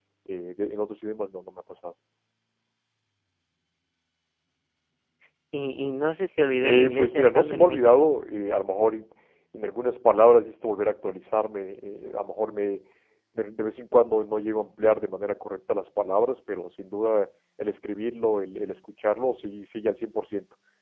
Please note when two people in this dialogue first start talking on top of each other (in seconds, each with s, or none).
6.6 s